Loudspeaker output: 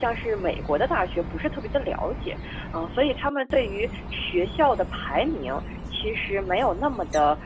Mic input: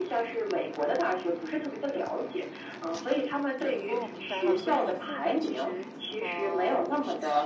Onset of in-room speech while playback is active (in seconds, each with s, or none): 3.9 s